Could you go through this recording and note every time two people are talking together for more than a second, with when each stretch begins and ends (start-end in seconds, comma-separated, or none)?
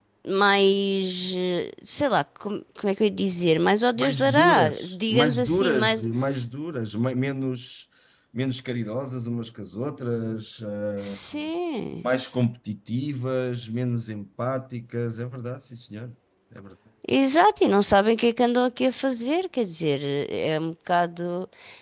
4.0-6.1